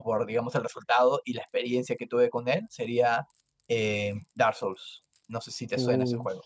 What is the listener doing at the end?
taking over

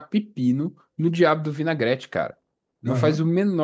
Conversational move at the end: listening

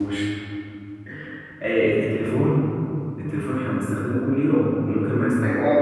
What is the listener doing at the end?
taking over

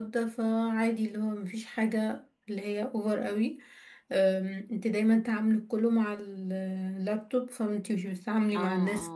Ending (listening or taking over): taking over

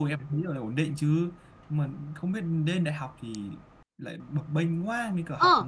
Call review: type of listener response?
taking over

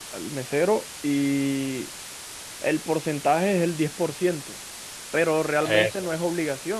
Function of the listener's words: listening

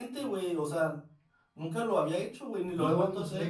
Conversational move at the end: taking over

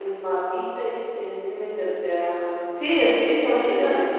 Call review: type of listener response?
taking over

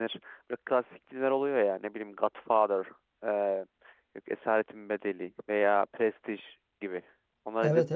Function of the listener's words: taking over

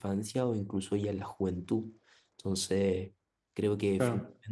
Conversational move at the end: listening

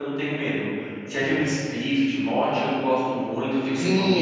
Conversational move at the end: taking over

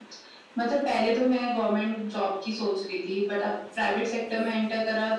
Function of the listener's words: listening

